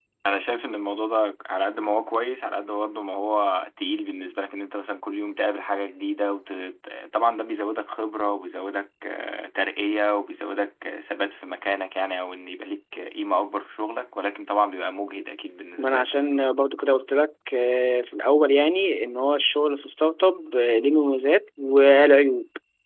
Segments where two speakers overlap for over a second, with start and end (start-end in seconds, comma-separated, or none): none